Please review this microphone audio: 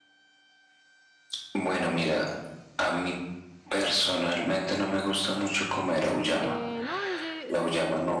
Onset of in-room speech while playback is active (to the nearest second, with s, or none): 6 s